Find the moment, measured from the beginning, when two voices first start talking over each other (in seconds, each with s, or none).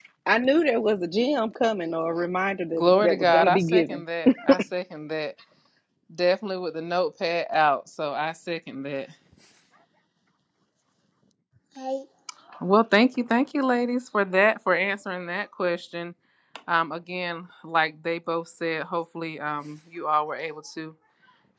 2.7 s